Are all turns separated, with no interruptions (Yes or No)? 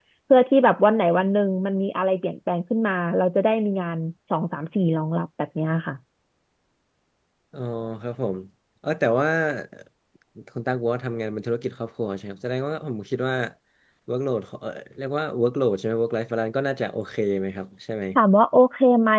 Yes